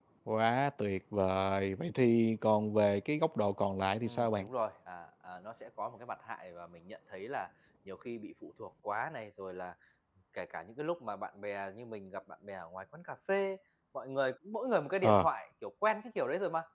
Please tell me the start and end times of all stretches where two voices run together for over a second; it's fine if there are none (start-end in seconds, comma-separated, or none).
none